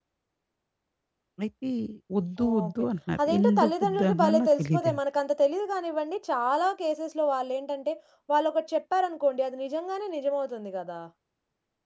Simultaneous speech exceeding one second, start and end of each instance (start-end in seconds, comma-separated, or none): 3.3-5.0